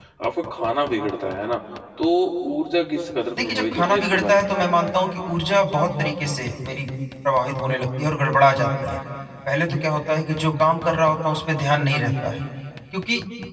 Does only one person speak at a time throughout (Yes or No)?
No